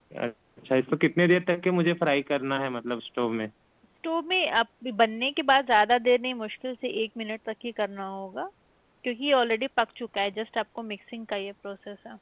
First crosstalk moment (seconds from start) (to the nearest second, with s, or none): none